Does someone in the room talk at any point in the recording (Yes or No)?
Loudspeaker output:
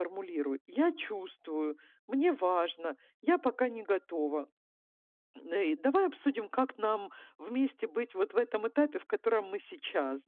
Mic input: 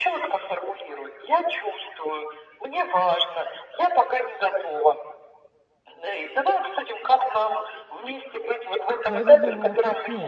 Yes